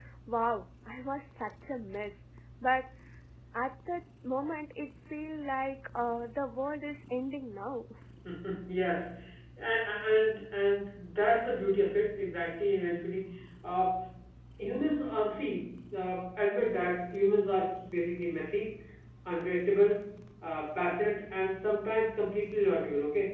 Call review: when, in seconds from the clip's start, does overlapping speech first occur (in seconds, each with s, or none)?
none